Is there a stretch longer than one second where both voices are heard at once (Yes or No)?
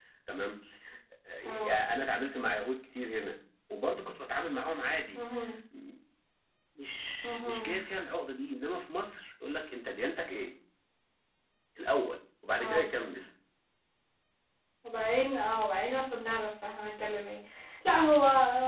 No